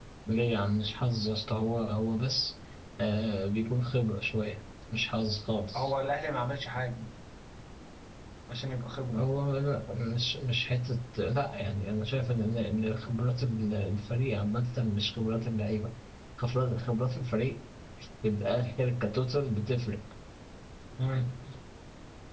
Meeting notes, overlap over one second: none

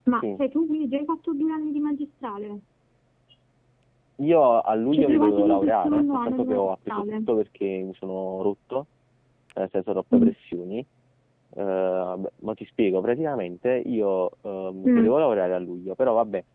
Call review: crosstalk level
present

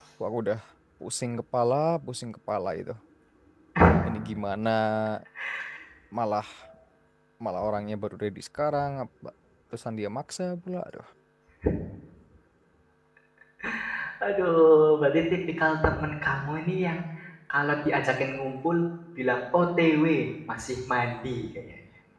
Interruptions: none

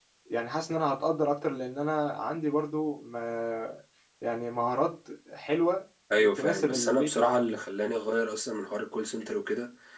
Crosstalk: present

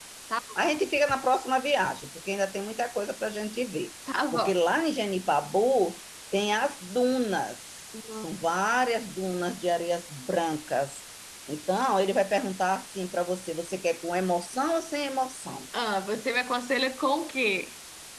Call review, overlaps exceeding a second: none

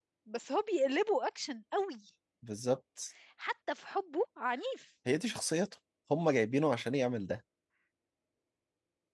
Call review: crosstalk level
none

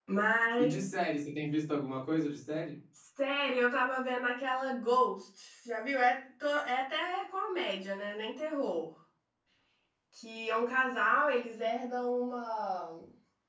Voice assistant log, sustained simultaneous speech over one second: none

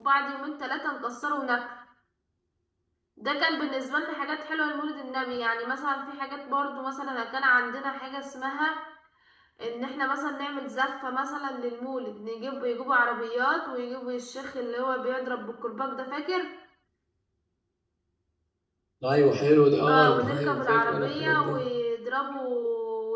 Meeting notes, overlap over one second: present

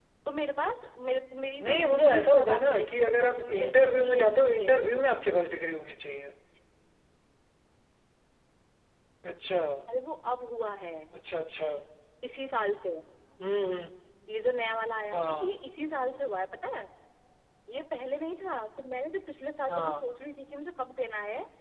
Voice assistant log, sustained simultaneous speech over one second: present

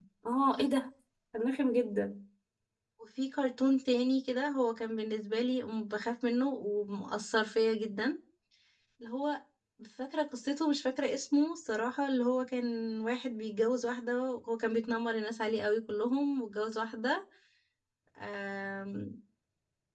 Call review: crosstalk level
none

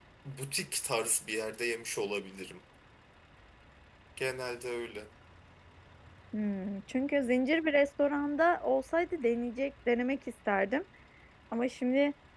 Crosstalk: none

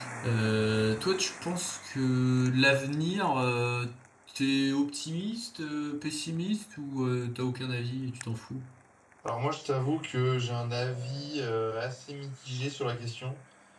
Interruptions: none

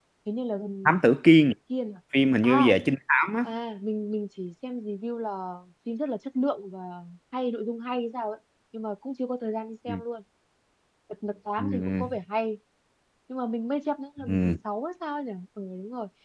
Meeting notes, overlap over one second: none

